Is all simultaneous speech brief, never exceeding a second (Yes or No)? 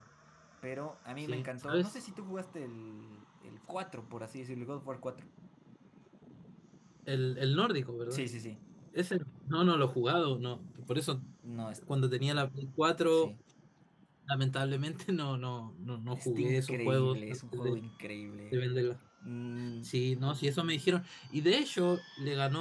No